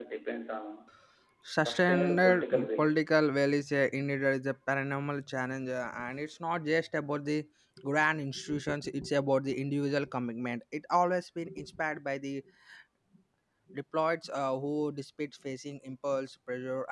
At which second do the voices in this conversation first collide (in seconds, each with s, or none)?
1.6 s